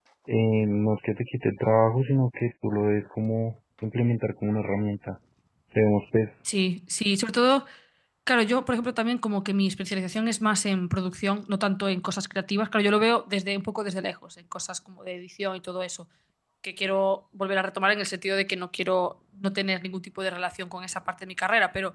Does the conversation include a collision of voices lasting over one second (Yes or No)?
No